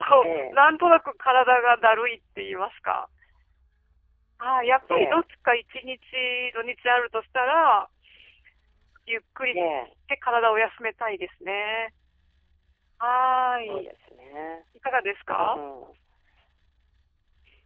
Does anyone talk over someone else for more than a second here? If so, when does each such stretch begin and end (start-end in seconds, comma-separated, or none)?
none